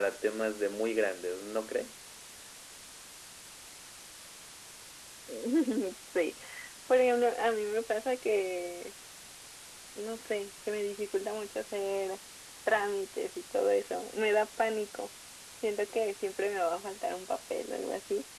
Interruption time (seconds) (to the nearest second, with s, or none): none